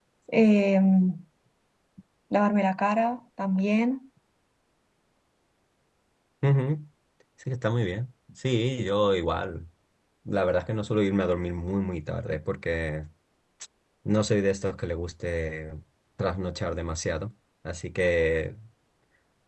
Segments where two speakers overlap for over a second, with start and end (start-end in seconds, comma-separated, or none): none